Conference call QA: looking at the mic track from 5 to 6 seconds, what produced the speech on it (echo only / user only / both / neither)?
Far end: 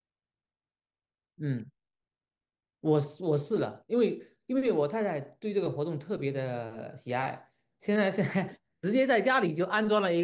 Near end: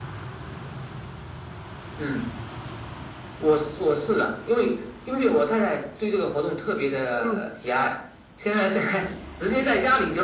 echo only